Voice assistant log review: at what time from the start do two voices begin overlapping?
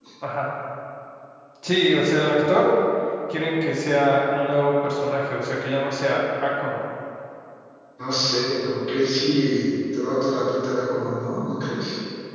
none

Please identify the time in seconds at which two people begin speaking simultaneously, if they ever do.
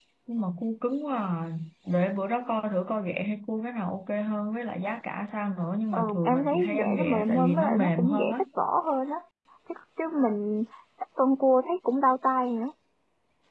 5.9 s

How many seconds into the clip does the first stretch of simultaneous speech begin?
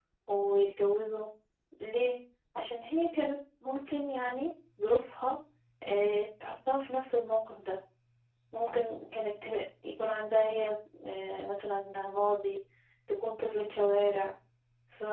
none

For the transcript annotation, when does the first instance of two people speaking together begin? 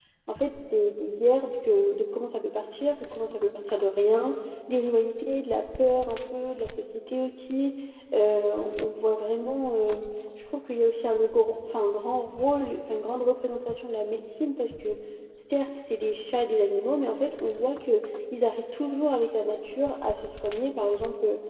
none

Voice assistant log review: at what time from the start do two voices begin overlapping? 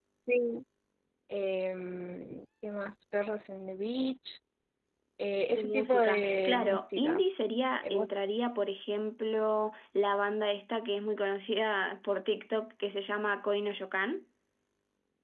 5.5 s

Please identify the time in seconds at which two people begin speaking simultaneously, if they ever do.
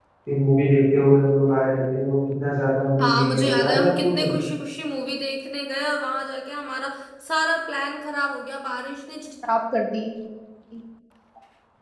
3.0 s

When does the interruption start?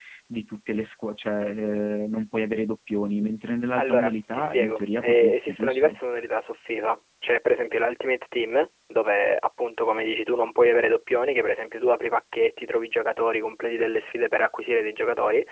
3.8 s

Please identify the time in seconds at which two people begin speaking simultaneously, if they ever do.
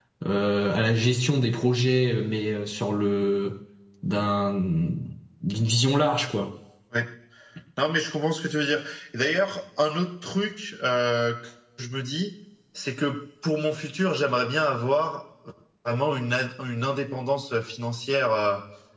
none

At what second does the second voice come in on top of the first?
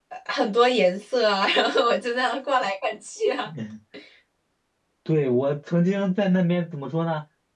none

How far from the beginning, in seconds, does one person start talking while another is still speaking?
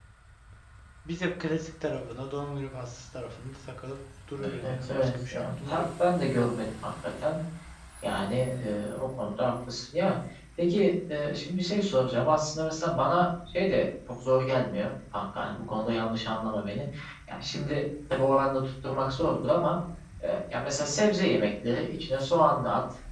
4.4 s

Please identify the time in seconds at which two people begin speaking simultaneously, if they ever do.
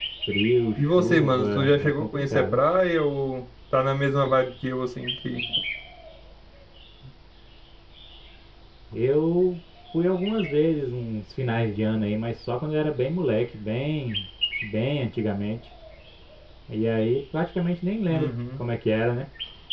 0.8 s

